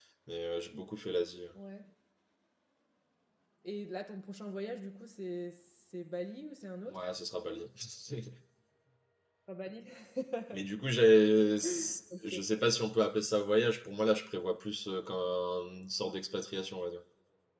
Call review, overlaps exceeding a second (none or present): none